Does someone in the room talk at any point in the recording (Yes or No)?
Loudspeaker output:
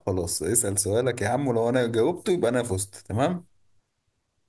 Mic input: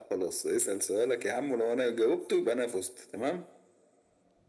No